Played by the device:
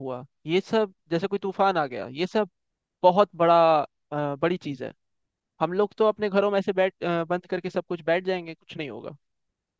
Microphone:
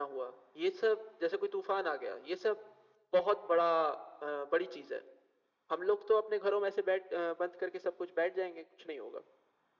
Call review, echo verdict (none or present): present